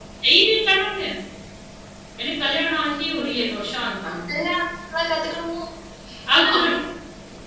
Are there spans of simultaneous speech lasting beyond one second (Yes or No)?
No